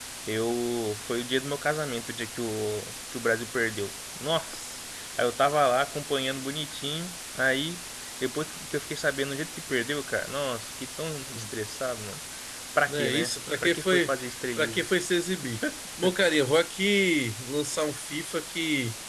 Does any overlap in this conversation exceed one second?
Yes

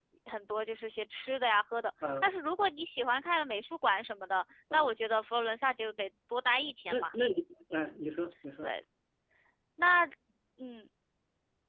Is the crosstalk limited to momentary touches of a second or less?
Yes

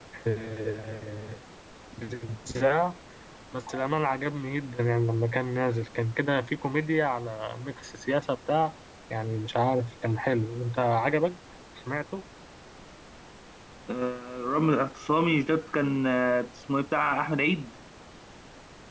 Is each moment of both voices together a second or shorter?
Yes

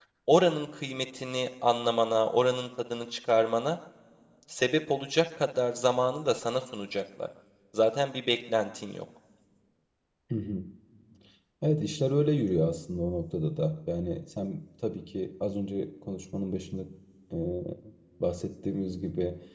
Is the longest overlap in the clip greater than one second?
No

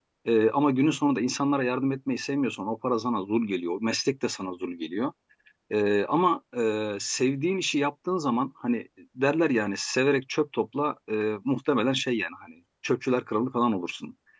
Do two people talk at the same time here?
No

